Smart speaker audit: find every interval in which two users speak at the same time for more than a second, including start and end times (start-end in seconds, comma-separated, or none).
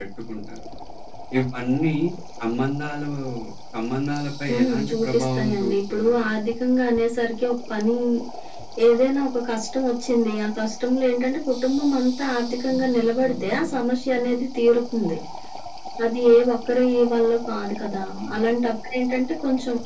4.5-6.2